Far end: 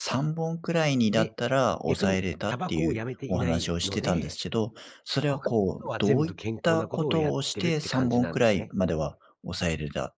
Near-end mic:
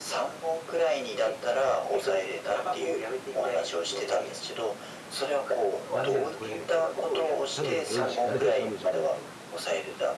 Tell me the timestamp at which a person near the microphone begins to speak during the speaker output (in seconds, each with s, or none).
5.9 s